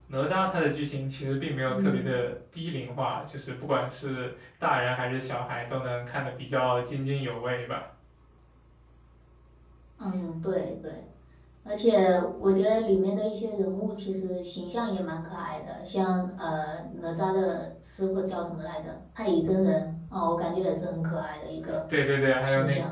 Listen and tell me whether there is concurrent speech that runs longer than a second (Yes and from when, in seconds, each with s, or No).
No